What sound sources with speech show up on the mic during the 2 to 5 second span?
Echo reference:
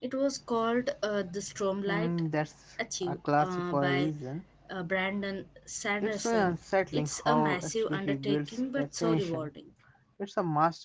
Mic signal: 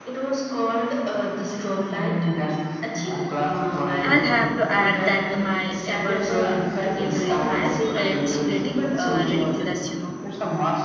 both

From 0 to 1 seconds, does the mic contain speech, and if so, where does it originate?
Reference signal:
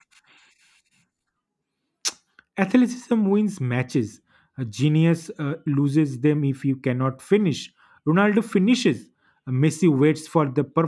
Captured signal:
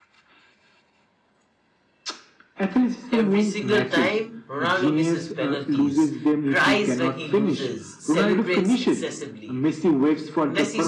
neither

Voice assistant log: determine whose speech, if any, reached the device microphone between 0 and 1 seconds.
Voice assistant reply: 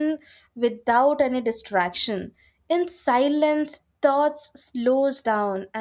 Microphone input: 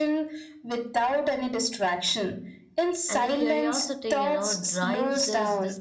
echo only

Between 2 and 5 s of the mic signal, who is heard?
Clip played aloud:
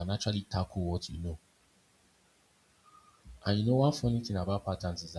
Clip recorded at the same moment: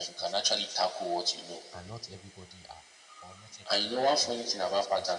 both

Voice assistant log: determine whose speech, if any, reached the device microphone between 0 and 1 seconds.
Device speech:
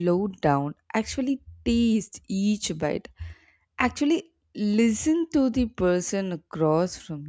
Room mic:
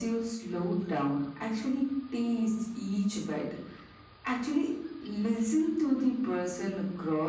echo only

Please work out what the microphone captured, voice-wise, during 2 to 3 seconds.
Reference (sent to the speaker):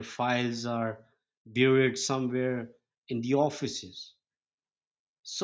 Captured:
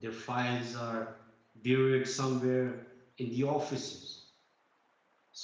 echo only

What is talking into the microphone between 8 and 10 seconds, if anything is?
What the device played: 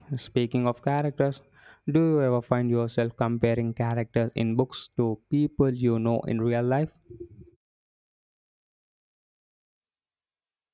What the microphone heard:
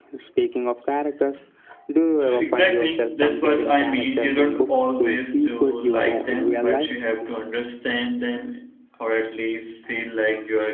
user only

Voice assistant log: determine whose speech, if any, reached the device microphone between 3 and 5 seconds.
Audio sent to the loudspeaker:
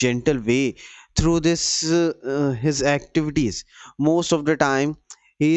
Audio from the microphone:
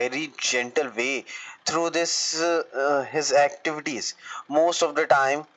echo only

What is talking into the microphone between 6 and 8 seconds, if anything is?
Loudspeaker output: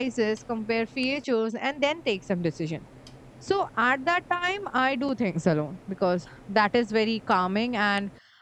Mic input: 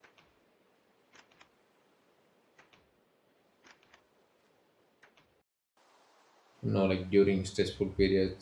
user only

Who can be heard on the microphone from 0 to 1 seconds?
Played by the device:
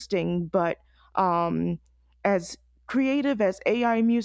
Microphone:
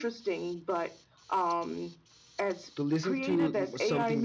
echo only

